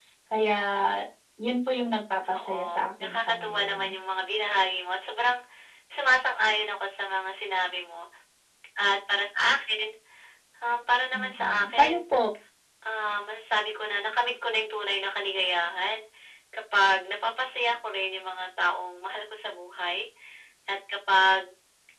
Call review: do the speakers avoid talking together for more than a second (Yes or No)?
No